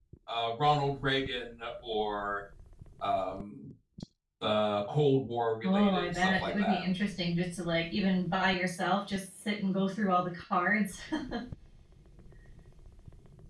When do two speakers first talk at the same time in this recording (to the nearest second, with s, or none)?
6 s